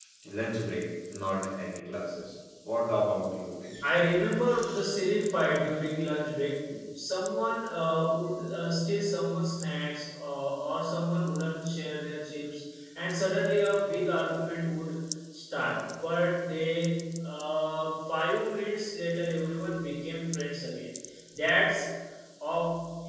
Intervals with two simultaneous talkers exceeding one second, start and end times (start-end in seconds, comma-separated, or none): none